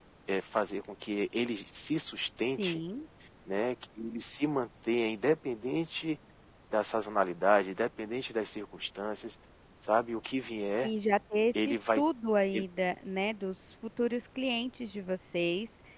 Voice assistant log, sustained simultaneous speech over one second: none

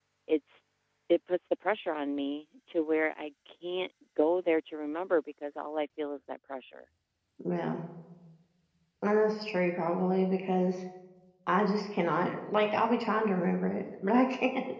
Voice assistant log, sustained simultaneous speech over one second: none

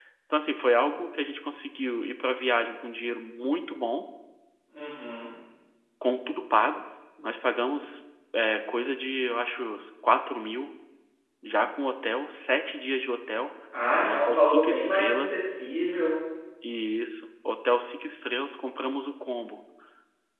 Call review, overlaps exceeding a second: present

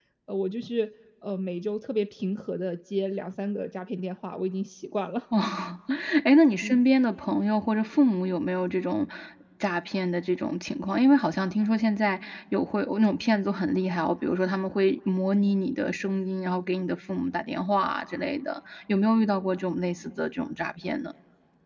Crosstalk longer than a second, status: none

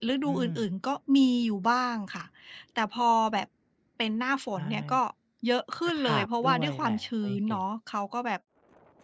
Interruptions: present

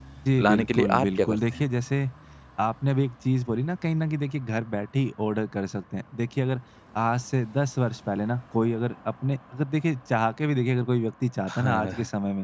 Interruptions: present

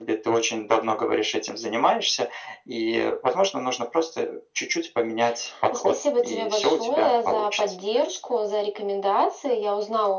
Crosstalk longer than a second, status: present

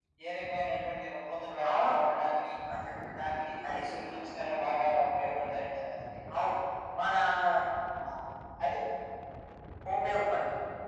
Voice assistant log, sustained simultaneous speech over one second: none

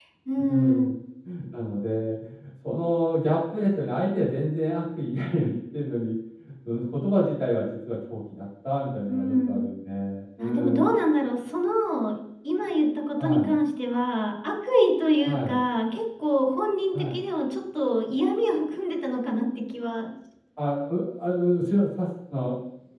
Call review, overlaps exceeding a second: none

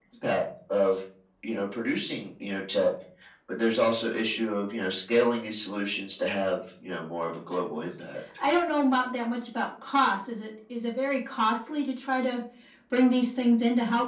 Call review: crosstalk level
none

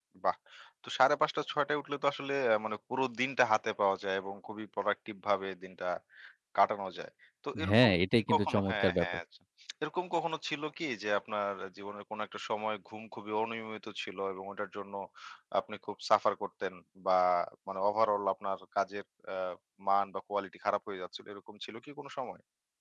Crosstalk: present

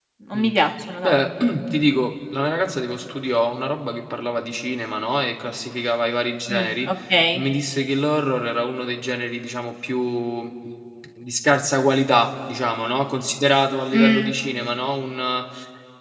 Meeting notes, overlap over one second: none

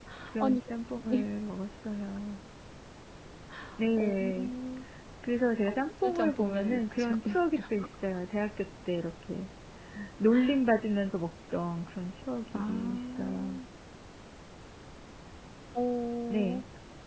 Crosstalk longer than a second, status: present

